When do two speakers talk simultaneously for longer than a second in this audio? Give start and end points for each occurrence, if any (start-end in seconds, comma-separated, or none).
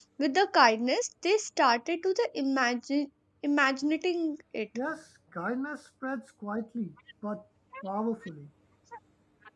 none